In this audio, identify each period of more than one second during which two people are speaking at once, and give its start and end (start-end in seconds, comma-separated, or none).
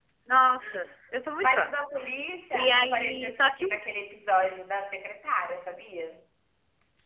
2.5-3.8